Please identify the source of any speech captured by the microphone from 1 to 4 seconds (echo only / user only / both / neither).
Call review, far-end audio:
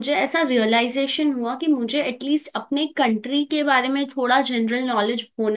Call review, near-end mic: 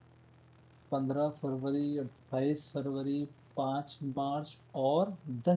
user only